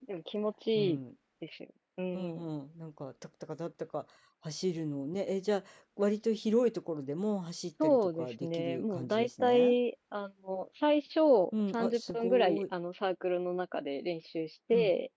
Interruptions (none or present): present